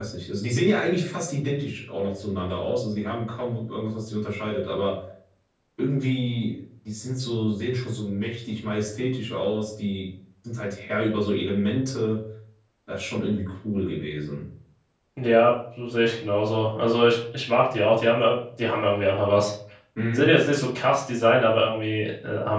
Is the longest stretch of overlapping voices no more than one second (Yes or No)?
Yes